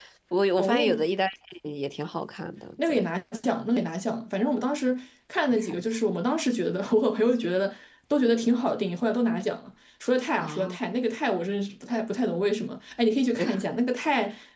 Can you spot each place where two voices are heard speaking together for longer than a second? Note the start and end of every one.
none

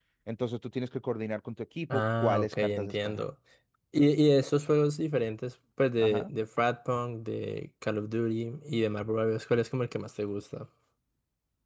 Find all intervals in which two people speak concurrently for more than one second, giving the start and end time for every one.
1.9-3.2

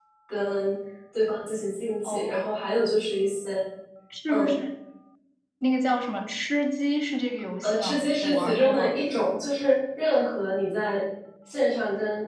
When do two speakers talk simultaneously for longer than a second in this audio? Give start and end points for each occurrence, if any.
7.6-9.0

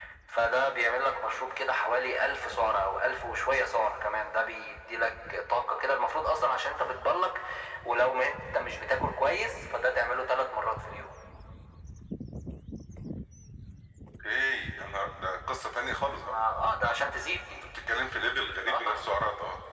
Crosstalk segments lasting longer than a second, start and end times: none

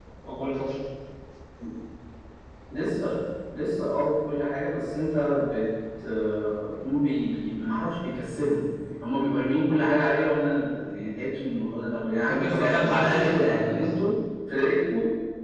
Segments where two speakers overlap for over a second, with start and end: 12.2-13.9

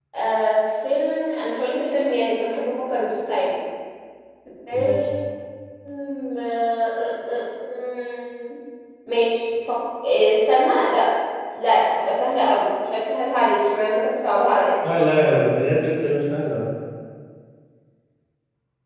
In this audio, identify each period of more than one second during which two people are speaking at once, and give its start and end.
none

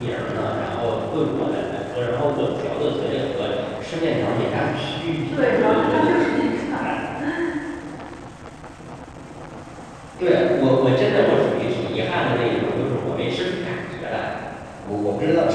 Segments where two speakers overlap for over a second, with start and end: 5.3-6.8

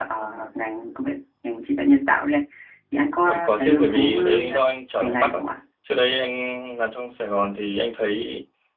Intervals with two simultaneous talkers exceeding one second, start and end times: 3.2-4.5

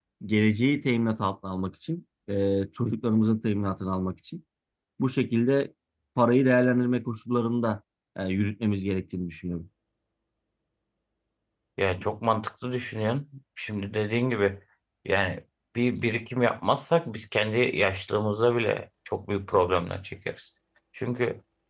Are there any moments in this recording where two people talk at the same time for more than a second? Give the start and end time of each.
none

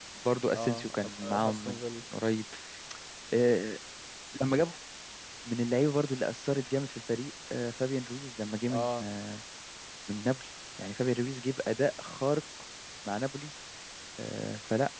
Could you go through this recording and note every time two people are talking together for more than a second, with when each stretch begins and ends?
0.5-1.8

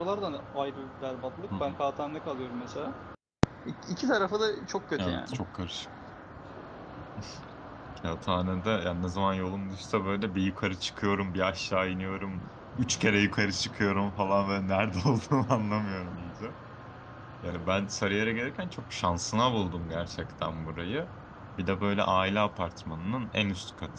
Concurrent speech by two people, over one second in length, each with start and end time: none

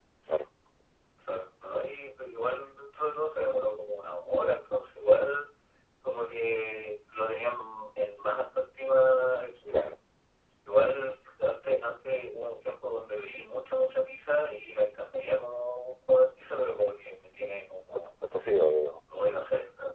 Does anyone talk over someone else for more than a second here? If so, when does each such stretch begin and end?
none

